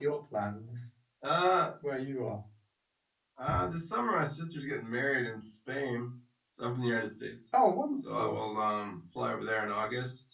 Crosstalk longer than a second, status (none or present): none